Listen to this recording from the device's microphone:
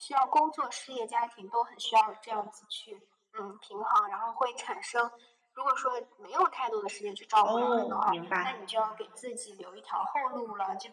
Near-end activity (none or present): present